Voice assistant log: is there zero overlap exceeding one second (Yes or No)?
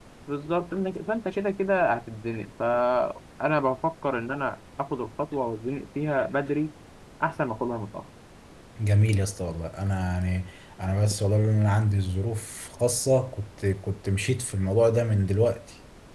Yes